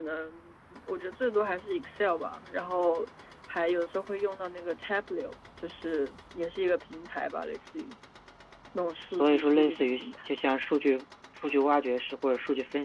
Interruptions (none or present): present